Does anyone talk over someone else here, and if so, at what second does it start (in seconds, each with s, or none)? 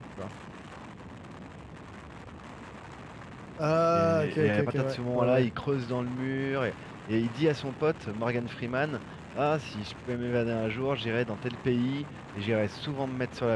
3.9 s